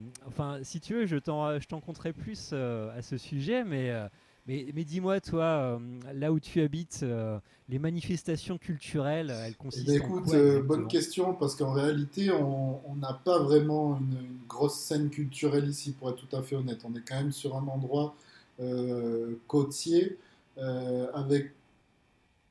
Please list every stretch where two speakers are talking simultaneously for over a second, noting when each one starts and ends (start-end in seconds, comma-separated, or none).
9.8-11.0